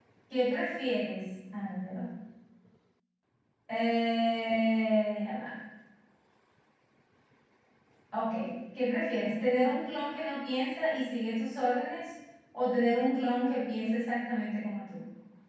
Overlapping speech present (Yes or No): No